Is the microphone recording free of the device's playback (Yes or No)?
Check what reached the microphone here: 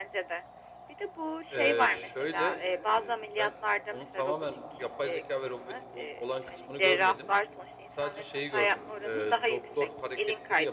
No